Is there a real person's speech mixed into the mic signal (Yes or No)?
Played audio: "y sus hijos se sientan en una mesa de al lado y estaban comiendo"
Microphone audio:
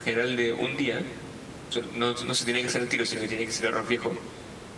Yes